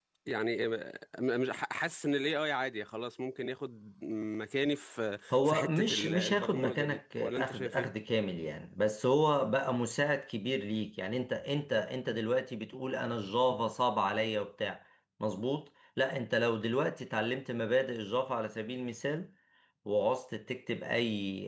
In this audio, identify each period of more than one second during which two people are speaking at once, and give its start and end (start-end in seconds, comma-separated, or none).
5.3-7.9